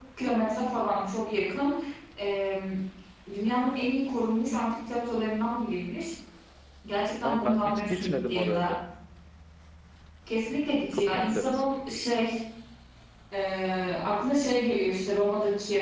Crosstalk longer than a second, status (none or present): present